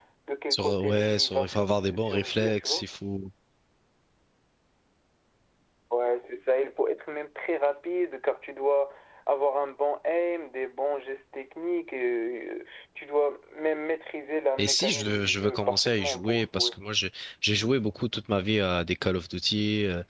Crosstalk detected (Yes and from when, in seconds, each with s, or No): Yes, from 0.5 s